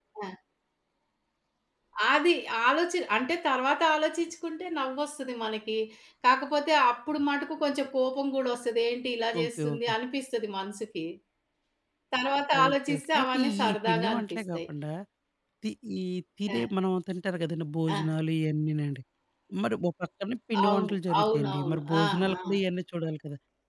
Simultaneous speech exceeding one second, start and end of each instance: 12.6-14.6, 20.7-22.4

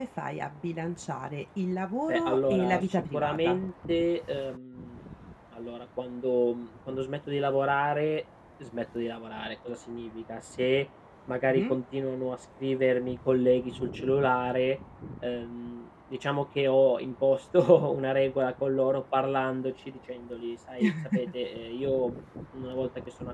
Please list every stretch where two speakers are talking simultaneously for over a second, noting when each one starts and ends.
2.1-3.6

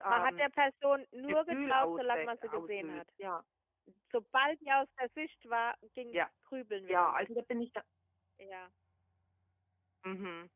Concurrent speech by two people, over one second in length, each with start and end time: 1.3-3.0

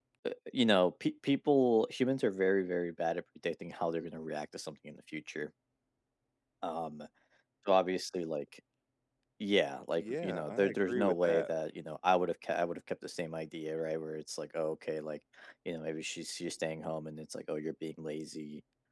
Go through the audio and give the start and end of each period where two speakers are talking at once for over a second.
10.0-11.5

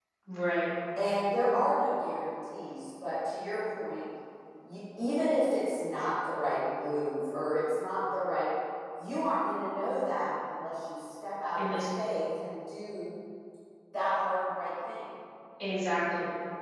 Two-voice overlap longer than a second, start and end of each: none

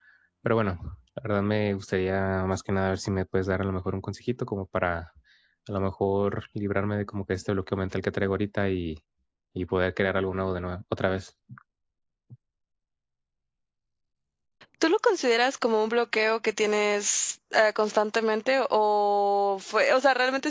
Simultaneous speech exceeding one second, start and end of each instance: none

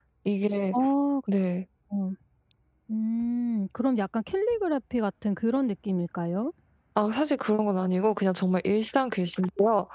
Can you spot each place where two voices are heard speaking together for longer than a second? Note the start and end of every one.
none

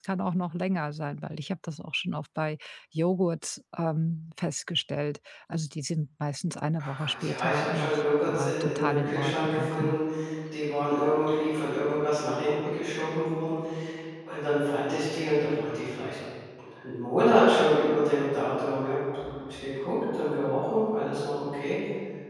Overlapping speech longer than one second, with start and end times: 6.8-10.0

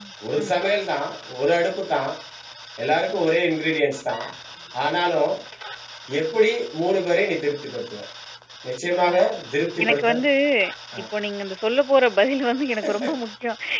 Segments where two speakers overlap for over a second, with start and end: none

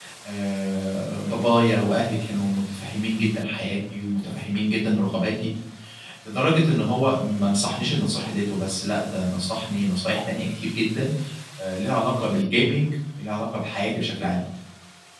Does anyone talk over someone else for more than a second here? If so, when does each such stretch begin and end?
none

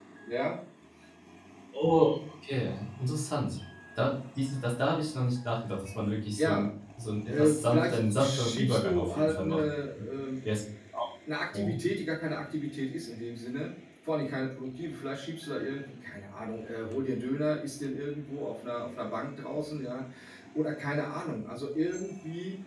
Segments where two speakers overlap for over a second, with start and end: 7.3-9.6

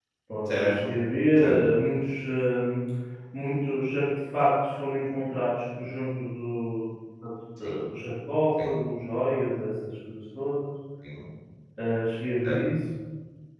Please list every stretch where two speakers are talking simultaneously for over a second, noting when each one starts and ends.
none

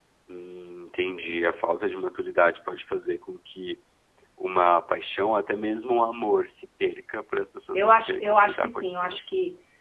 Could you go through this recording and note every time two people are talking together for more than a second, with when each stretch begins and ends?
7.7-9.2

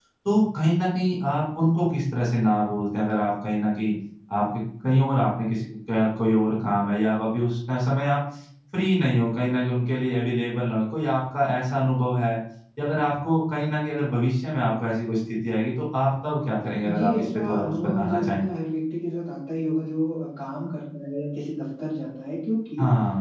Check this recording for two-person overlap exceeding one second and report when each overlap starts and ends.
16.8-18.4

